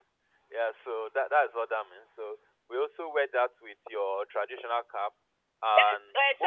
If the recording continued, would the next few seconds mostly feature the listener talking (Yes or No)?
Yes